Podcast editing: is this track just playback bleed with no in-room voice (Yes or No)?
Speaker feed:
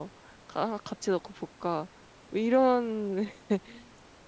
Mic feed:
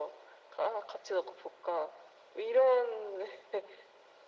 Yes